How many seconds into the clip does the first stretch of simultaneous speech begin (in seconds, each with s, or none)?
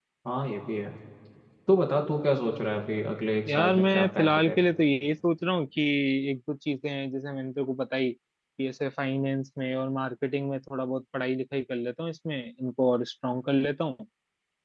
3.5 s